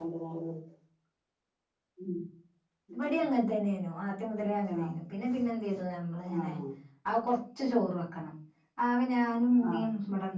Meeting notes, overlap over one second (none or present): none